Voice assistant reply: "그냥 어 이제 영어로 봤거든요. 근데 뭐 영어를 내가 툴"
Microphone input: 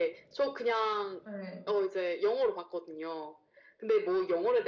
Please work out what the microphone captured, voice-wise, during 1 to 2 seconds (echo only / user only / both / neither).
both